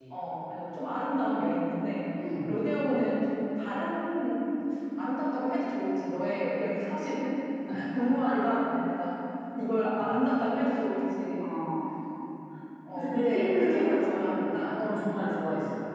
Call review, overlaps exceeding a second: present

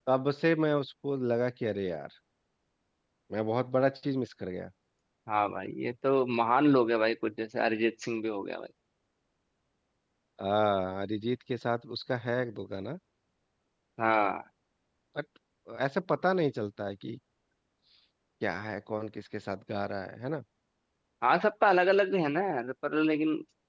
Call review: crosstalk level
none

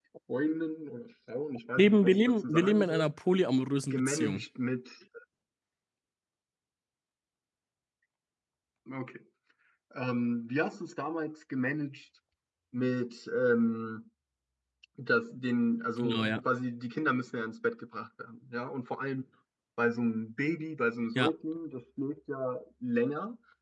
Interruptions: present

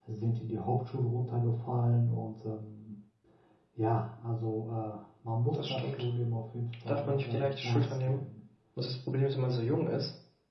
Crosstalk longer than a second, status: present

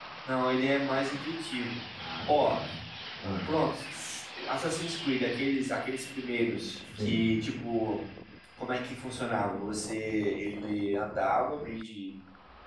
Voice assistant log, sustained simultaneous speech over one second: none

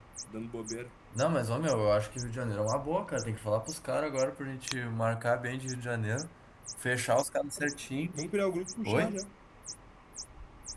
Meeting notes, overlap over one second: none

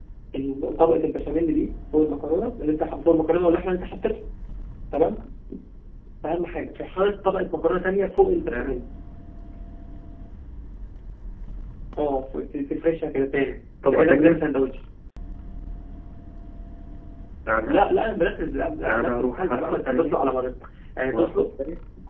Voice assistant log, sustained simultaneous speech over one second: present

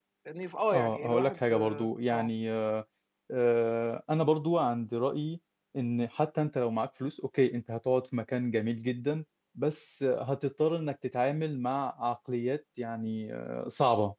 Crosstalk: present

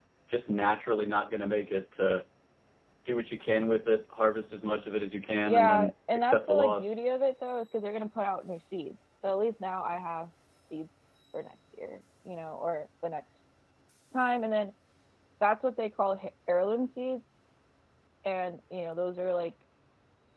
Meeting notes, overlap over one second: present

